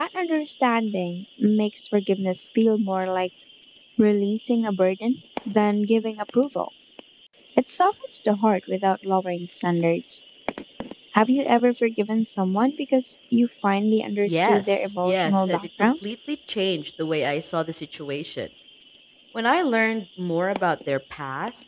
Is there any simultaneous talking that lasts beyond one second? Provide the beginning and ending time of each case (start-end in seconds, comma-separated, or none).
14.2-15.9